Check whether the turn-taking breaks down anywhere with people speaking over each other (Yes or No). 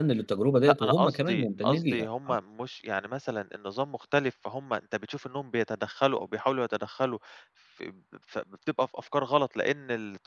Yes